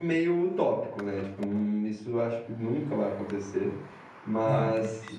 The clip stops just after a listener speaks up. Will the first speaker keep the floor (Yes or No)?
Yes